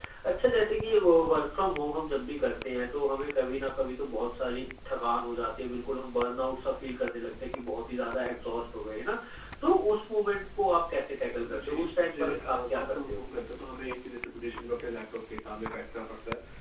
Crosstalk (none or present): present